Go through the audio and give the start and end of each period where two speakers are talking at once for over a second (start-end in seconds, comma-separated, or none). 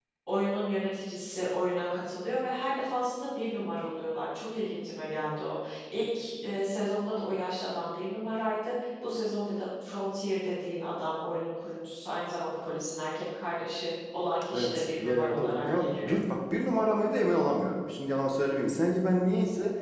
14.5-16.1